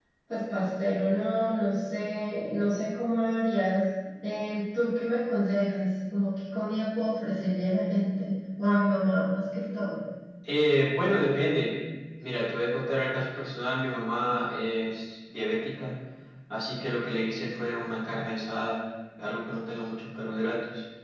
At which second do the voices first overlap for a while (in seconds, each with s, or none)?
none